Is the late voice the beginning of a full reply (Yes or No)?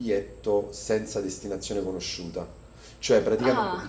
No